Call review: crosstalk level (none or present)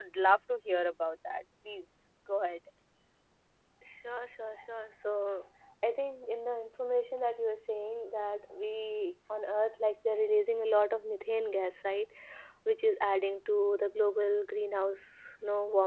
none